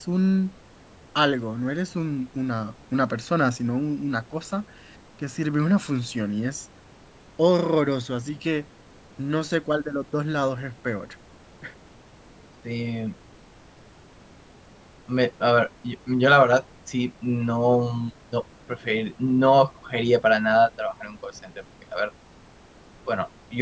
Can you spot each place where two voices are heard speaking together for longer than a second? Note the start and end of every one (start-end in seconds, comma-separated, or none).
none